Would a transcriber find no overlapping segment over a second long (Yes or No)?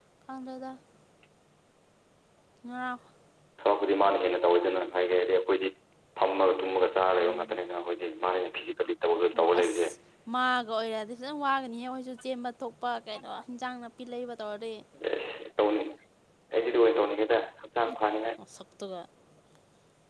Yes